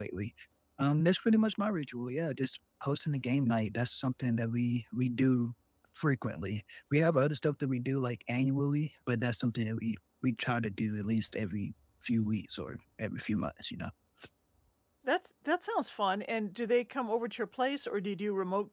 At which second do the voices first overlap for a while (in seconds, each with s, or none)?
none